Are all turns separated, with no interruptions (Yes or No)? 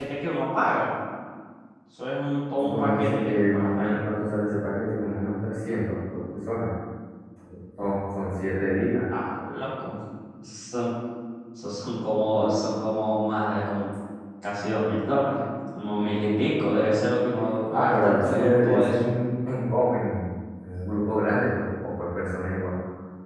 No